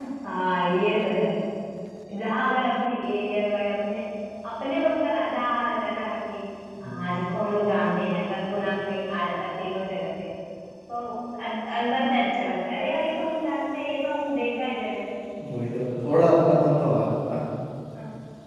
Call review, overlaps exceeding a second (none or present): none